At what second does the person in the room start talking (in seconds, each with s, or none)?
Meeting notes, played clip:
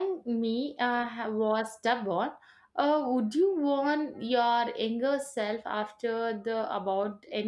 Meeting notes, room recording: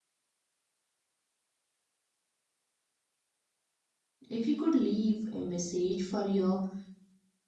4.3 s